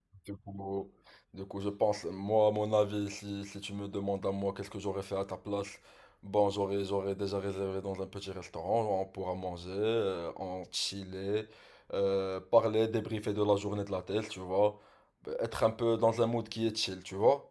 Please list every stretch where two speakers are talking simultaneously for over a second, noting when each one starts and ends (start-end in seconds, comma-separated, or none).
none